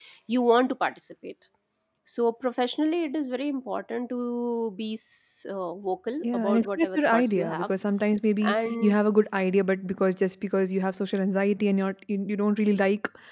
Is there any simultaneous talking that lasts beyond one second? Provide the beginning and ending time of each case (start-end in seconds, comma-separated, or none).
6.2-7.7